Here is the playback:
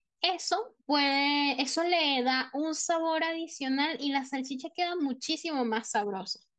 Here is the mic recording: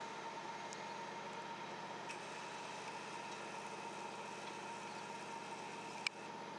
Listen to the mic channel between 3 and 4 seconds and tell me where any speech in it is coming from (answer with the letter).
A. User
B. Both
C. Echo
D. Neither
D